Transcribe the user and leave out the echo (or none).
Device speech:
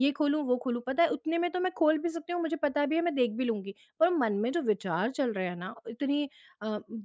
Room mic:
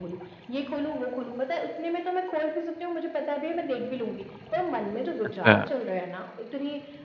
अच्छा।